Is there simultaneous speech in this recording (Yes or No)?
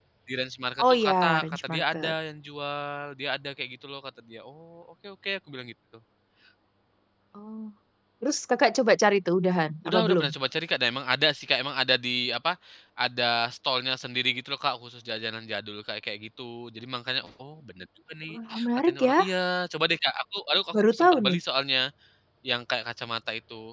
Yes